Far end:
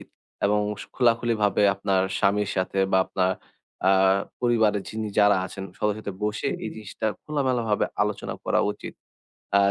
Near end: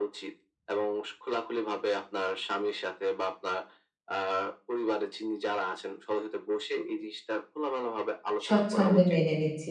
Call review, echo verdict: present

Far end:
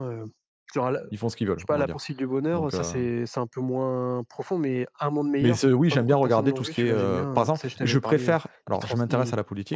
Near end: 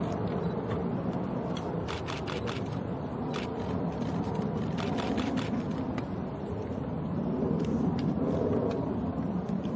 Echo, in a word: none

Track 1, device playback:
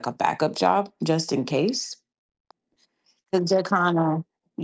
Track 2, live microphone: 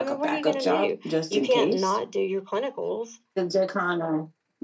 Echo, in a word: present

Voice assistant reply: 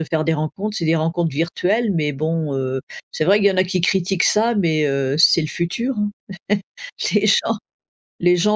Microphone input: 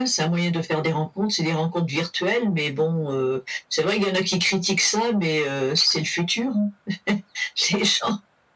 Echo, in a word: present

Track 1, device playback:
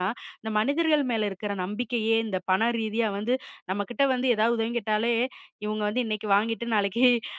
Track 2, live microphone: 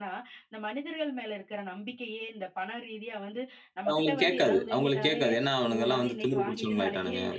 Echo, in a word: present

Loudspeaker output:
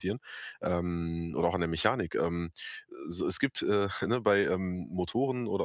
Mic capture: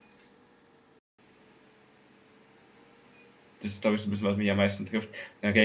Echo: none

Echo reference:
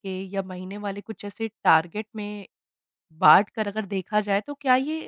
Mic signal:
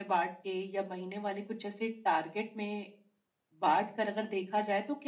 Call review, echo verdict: present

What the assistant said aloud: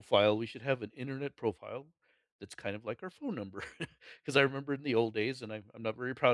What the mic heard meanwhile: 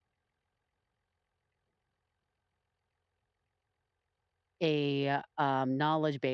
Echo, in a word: none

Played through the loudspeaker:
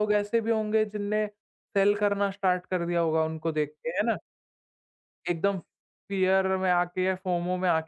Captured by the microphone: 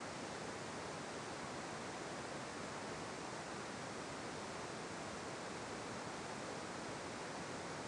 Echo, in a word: none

